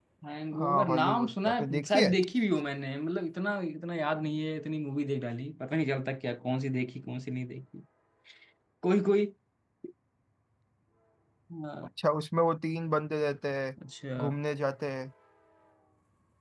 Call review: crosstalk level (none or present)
present